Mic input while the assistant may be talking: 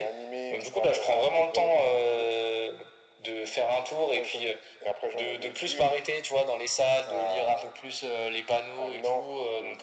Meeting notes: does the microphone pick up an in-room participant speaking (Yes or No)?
No